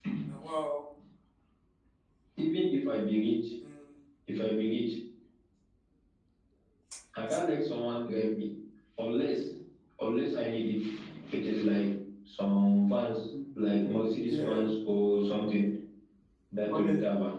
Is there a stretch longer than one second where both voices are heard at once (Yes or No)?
No